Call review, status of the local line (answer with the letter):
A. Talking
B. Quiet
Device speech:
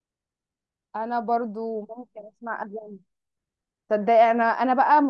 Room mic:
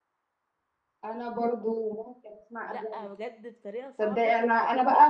A